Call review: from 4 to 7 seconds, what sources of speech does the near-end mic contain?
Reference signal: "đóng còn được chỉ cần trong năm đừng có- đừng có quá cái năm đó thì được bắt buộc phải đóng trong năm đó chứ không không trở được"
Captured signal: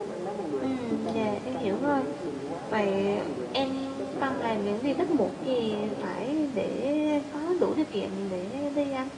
both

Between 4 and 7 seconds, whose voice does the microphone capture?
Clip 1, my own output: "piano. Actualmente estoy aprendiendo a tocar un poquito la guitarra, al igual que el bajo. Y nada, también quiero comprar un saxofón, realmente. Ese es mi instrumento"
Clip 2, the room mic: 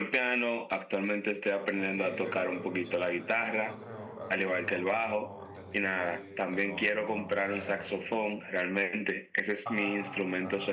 both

